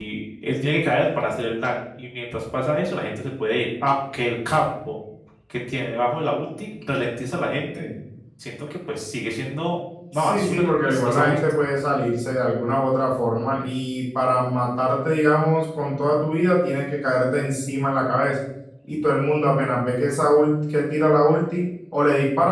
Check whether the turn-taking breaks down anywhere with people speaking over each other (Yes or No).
Yes